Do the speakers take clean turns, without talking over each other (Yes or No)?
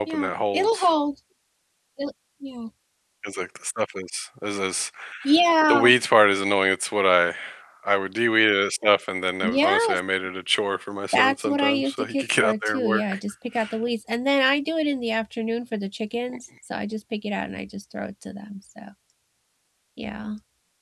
No